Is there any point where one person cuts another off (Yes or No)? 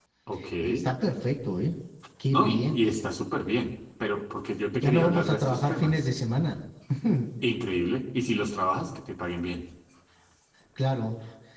Yes